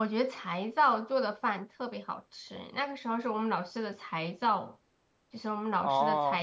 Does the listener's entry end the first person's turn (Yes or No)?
No